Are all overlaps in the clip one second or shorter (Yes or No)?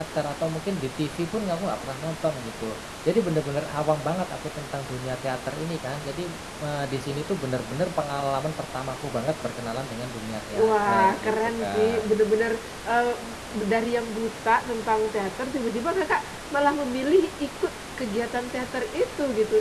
No